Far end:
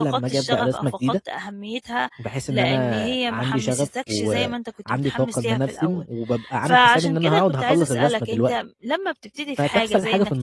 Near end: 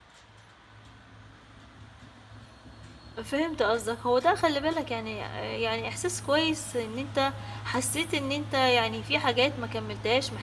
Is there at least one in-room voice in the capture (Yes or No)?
Yes